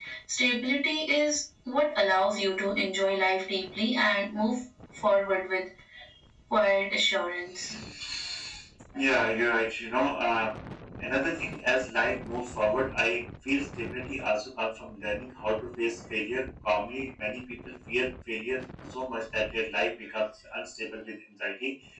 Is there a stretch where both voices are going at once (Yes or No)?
No